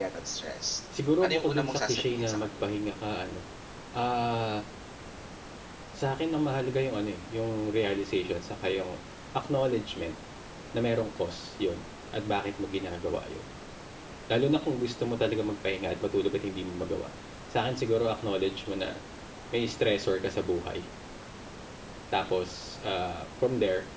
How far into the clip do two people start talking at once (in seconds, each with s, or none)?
1.2 s